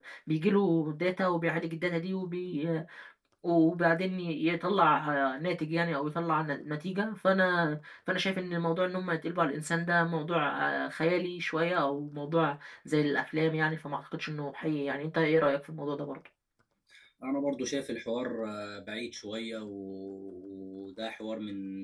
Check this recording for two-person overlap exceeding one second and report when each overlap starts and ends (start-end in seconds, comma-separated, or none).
none